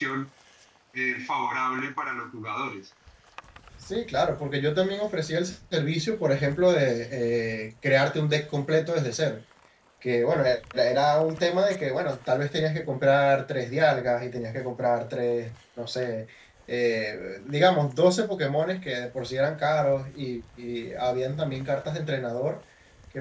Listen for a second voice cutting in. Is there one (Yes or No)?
No